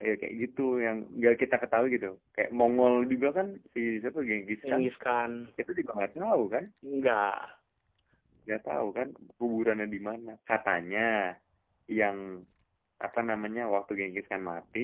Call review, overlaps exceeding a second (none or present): none